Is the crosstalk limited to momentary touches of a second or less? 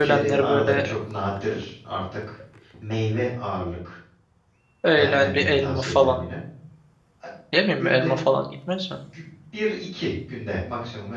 No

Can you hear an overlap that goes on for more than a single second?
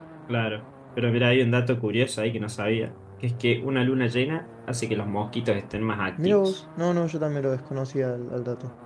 No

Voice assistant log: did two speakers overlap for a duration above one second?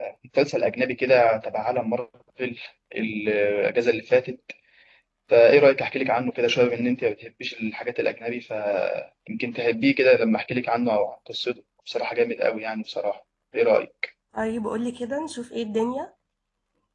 No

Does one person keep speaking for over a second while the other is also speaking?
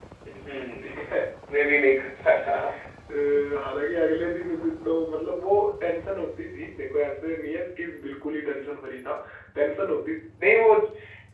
No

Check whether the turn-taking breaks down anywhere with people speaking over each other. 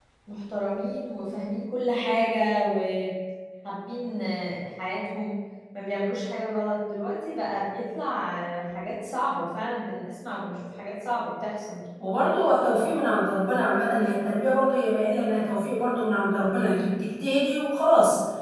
No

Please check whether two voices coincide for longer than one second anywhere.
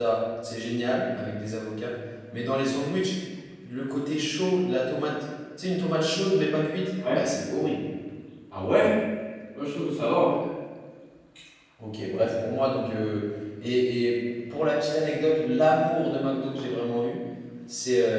No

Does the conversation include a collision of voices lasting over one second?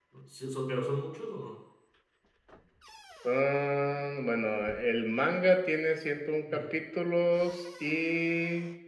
No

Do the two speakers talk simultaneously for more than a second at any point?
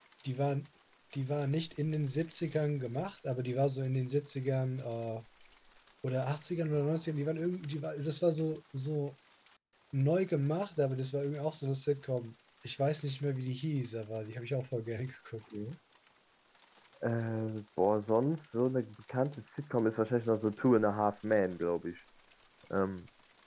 No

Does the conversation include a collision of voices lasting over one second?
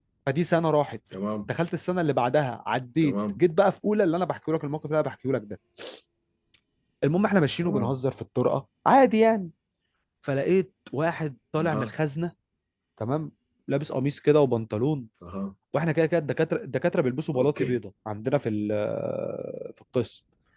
No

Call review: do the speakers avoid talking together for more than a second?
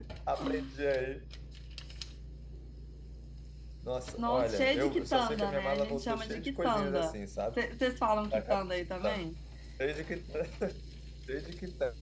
No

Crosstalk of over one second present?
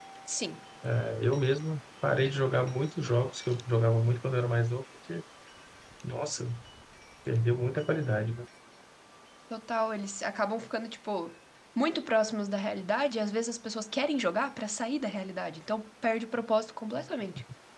No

